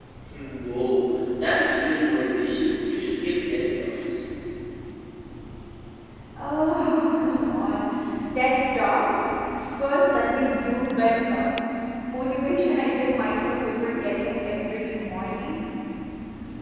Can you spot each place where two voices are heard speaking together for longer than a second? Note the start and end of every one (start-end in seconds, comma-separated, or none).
none